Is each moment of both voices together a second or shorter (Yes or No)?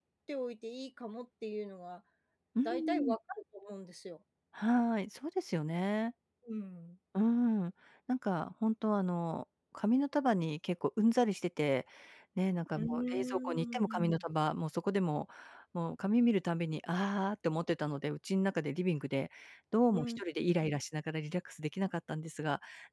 No